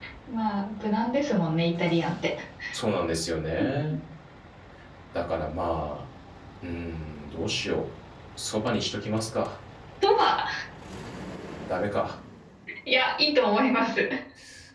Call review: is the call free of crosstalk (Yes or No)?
Yes